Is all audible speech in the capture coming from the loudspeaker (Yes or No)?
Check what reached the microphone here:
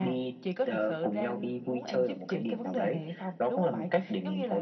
Yes